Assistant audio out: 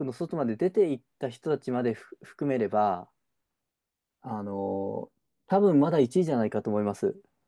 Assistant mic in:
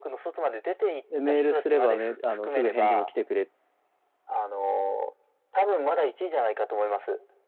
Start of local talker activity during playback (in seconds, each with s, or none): 1.1 s